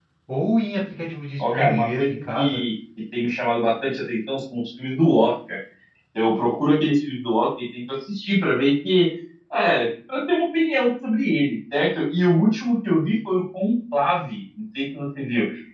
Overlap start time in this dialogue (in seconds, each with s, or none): 1.4 s